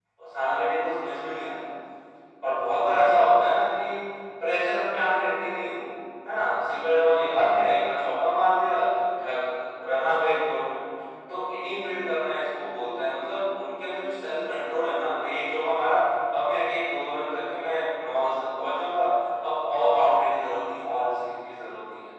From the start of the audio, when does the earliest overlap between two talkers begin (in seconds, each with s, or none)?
none